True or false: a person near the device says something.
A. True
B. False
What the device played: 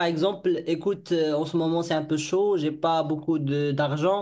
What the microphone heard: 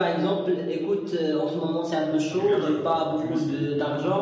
A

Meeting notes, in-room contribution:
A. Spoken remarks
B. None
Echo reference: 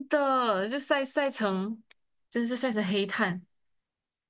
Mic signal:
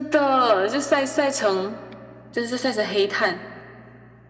B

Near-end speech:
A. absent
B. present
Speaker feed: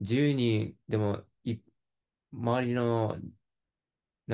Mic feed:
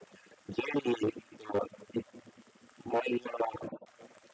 A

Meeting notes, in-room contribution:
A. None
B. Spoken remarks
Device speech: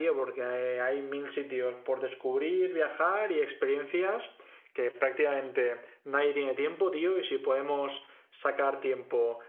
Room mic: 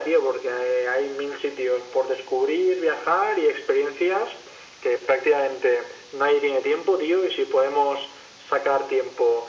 A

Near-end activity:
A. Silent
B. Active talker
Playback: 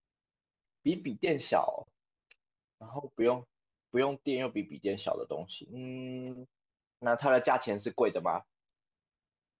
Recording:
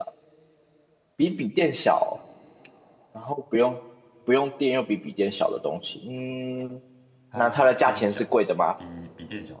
B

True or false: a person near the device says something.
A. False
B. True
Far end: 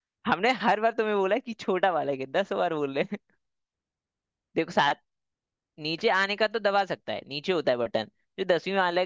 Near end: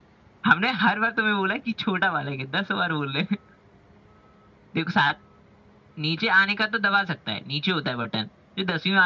A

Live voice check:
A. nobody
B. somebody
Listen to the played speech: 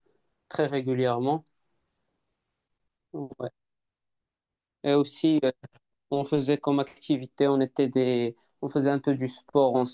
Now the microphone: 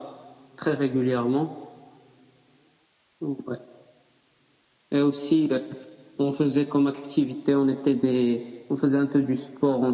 A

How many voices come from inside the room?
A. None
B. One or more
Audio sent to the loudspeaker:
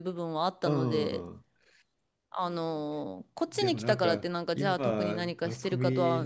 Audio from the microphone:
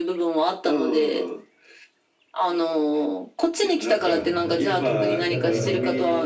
B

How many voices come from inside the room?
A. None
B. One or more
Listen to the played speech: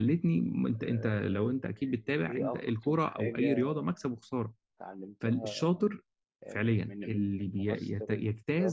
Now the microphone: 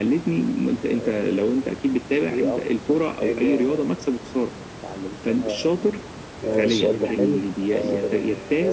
B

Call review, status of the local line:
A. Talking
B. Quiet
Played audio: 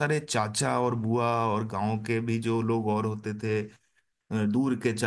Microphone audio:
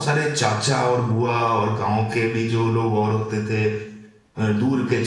B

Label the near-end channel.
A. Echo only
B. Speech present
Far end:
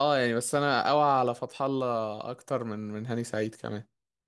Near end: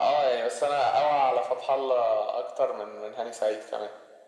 A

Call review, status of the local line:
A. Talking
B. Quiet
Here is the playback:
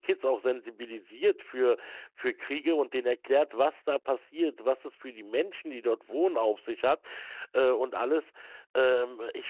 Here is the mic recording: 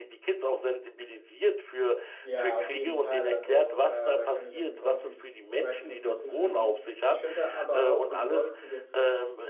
A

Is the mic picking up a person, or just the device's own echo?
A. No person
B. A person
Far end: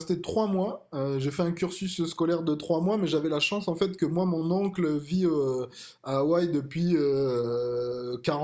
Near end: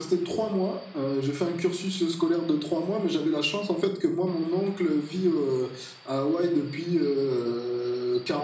A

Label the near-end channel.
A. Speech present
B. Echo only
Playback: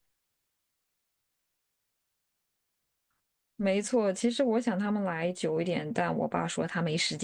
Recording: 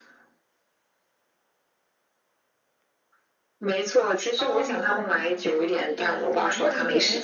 A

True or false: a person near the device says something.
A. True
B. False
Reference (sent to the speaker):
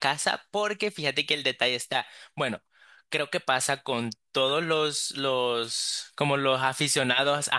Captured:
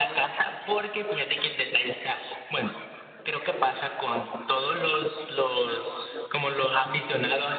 B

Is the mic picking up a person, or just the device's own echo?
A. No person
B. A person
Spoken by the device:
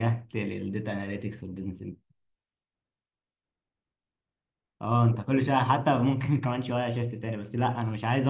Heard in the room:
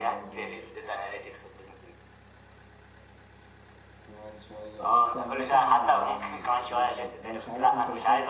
B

